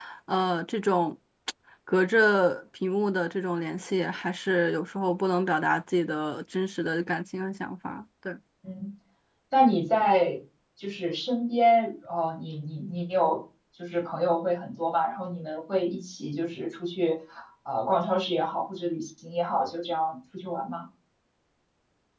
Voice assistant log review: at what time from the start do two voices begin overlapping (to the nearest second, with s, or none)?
none